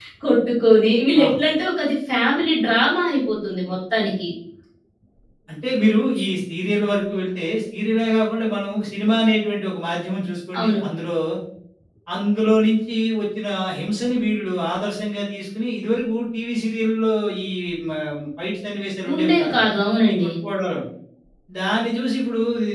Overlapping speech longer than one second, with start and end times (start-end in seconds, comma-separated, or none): none